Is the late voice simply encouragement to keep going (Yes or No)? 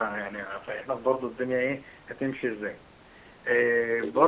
Yes